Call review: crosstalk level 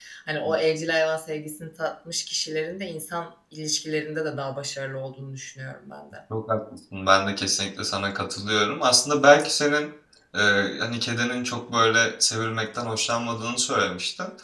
none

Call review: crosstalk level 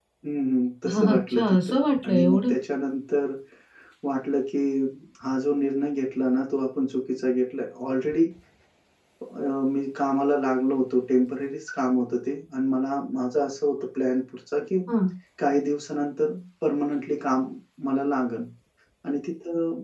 present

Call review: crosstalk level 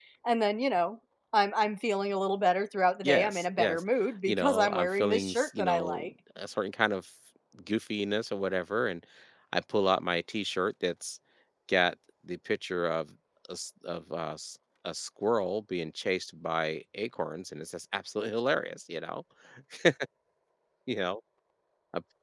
present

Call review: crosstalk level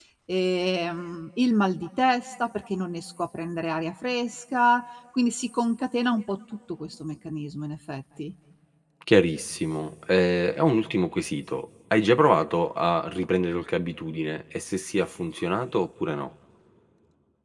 none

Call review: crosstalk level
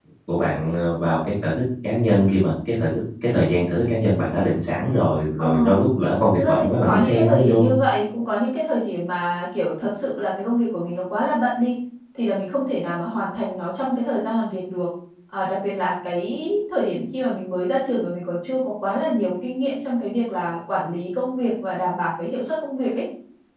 present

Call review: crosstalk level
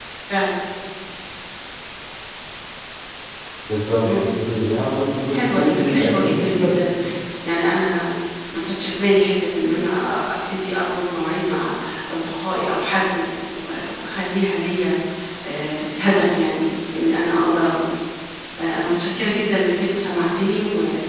present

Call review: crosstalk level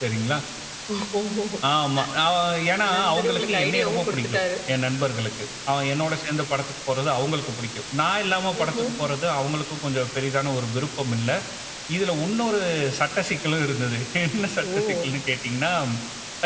present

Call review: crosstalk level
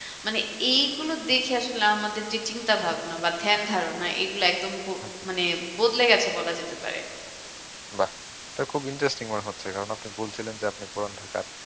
none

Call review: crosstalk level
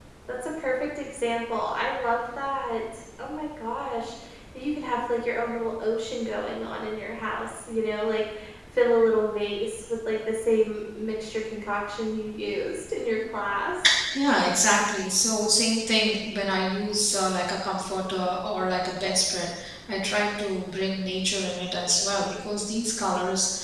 none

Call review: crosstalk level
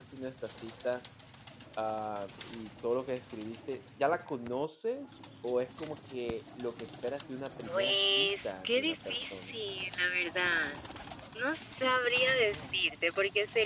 present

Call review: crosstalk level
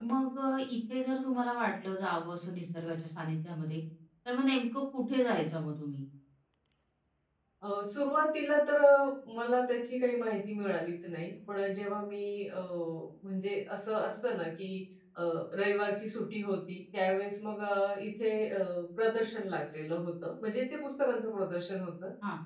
none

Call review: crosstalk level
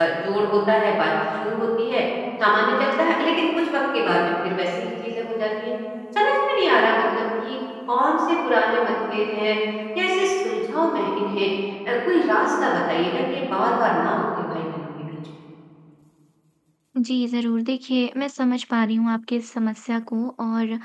none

